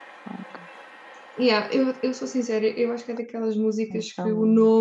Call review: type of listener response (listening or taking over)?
listening